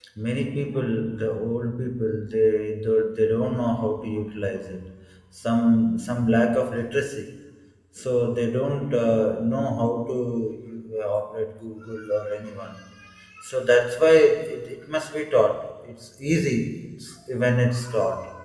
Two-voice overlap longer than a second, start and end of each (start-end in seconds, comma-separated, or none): none